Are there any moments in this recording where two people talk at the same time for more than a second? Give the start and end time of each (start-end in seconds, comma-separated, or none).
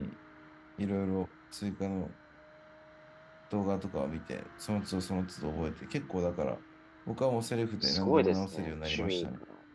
7.8-9.3